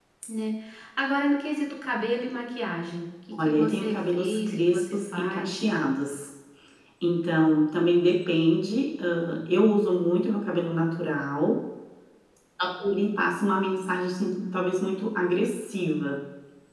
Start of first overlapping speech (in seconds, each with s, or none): 3.4 s